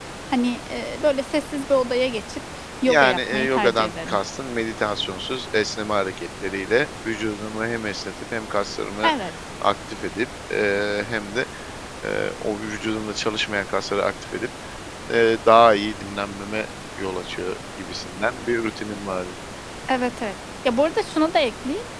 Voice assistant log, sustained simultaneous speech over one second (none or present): present